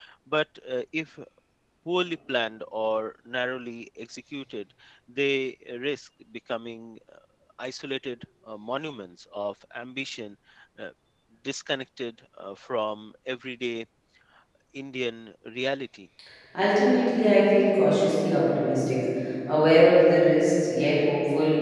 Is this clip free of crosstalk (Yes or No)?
Yes